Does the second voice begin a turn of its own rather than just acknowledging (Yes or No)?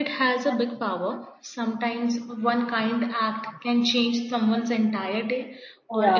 No